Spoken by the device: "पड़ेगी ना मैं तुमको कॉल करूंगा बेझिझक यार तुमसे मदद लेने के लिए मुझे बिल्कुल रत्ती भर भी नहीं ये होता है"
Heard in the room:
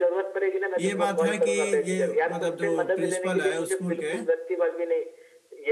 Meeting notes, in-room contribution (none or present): present